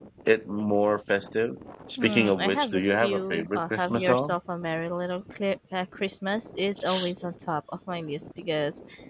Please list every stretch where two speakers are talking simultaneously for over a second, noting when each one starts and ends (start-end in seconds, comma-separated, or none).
2.0-4.3